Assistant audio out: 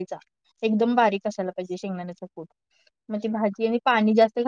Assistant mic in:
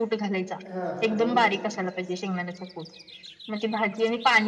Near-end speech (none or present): present